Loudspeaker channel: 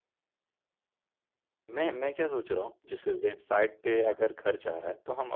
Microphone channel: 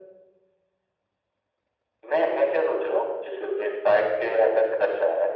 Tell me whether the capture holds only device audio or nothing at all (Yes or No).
Yes